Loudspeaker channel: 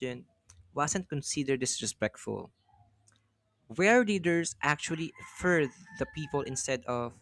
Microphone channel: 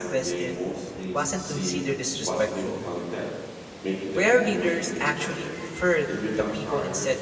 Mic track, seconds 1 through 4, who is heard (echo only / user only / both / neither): both